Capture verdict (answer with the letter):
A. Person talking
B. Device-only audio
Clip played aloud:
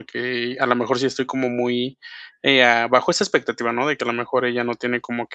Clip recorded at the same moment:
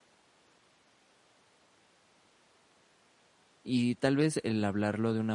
A